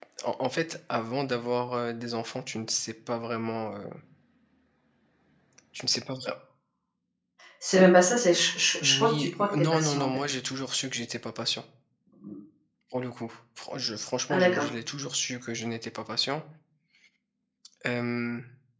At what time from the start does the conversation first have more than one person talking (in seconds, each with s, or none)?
8.8 s